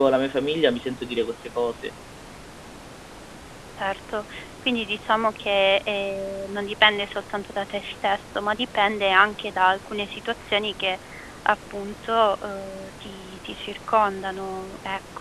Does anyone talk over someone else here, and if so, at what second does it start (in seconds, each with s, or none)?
none